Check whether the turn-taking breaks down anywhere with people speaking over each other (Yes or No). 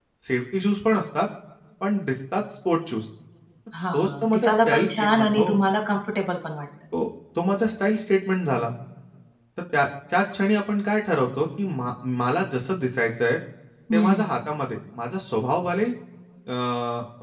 Yes